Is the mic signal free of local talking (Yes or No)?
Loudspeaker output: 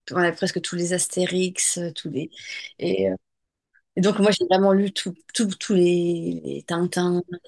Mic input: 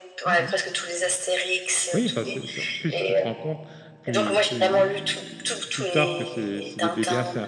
No